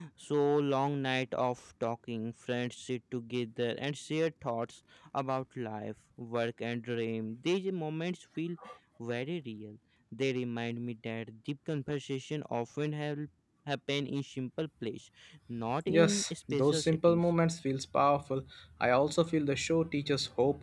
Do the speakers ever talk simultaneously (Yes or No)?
Yes